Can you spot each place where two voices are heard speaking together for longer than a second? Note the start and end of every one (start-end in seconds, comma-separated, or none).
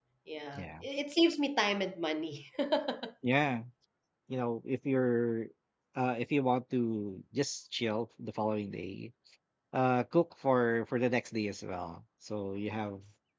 none